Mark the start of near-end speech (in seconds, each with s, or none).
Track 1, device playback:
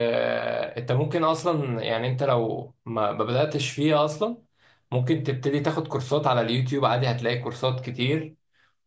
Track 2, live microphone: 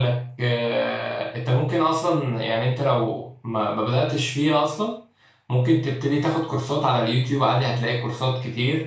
none